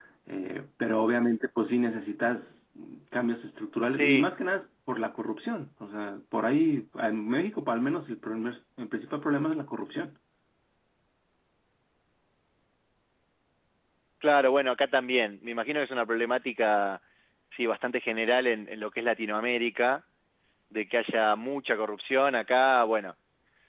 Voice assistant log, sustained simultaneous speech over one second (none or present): none